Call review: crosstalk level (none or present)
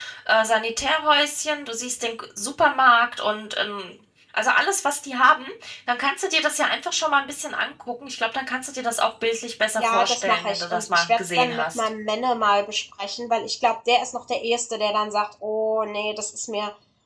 present